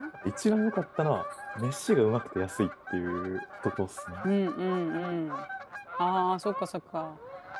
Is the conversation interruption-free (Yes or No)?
Yes